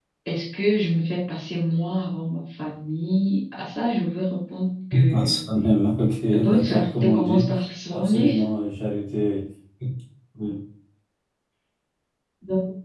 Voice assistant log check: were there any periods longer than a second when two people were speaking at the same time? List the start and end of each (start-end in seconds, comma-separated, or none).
6.3-7.5